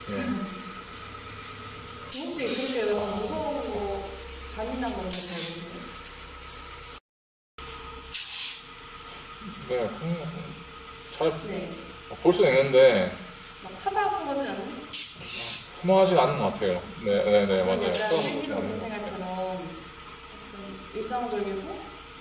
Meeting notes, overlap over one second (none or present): present